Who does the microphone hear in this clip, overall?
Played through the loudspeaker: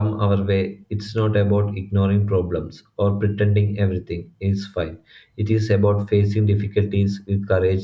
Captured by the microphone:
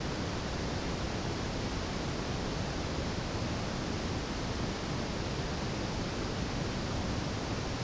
neither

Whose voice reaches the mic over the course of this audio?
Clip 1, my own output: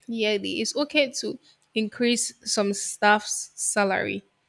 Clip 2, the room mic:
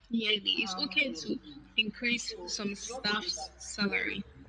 both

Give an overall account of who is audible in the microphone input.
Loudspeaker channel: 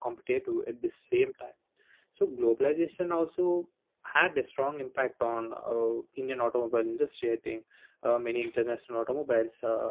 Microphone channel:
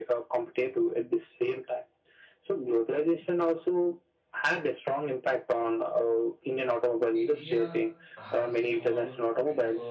both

